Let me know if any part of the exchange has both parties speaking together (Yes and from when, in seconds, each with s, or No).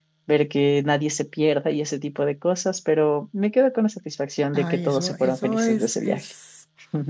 Yes, from 4.5 s